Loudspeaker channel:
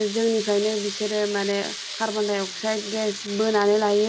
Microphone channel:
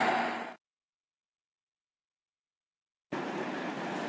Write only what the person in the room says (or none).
none